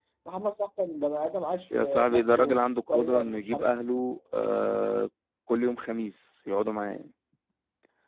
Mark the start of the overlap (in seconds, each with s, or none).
1.7 s